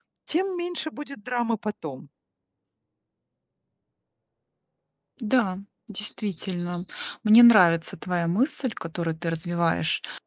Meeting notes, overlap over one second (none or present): none